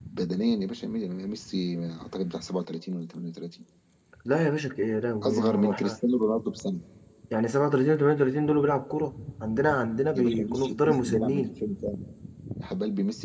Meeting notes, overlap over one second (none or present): present